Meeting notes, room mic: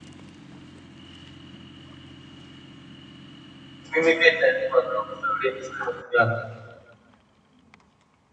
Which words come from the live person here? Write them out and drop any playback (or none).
imitate that for the students. yeah